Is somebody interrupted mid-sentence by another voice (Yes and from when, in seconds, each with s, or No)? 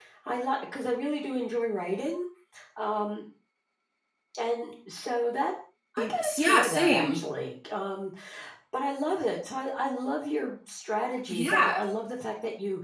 Yes, from 6.0 s